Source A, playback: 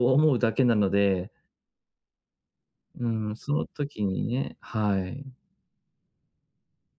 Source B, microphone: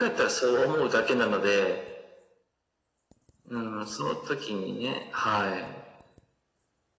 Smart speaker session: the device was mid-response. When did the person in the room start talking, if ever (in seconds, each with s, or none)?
none